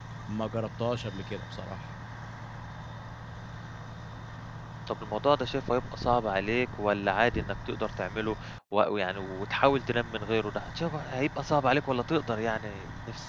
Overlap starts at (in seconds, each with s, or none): none